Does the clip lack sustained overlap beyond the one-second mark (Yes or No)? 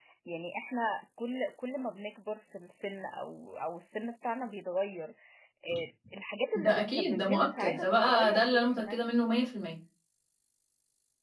No